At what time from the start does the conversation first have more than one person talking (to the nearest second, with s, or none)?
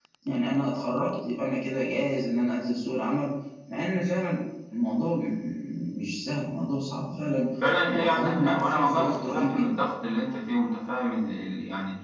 8 s